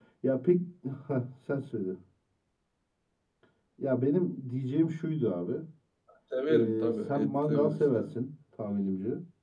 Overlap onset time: 6.5 s

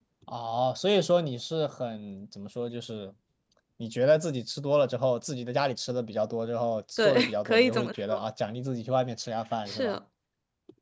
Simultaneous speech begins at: 7.0 s

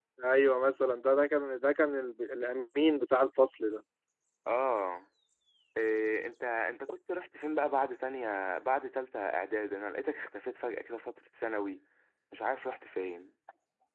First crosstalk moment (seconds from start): none

